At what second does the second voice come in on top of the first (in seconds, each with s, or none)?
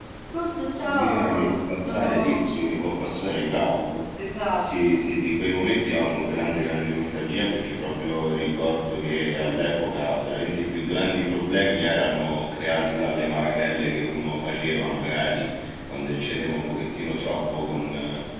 0.9 s